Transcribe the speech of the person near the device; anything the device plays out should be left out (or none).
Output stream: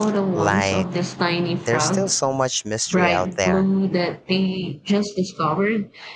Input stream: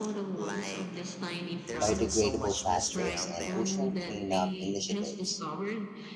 biodegradable plastics and ocean cleanup initiatives.